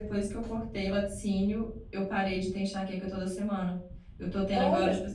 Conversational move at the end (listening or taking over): listening